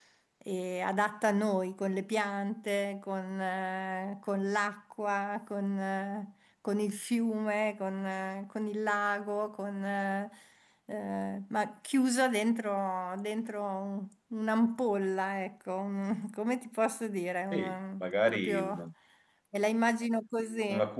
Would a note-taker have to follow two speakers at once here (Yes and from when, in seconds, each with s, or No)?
Yes, from 17.5 s